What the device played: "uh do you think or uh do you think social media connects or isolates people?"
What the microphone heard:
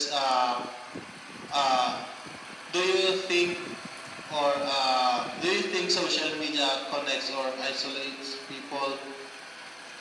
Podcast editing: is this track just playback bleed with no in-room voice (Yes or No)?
Yes